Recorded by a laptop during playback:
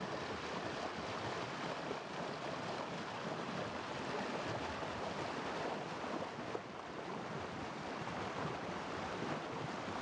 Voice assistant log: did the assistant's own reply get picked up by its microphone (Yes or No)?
No